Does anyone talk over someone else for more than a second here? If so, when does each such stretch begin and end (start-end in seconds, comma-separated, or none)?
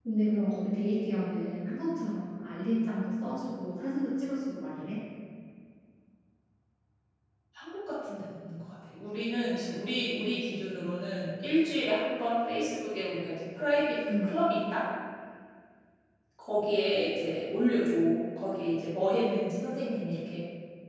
none